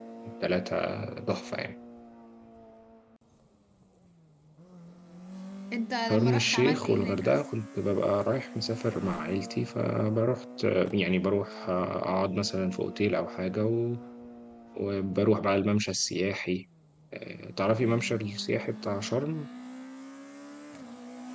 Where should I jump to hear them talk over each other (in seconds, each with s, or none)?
6.1 s